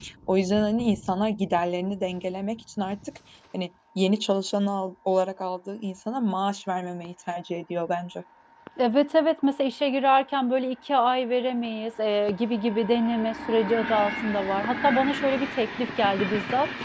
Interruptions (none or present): none